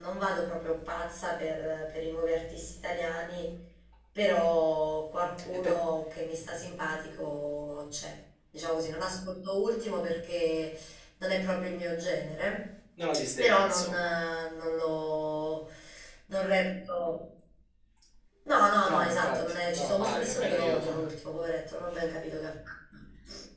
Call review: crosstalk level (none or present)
present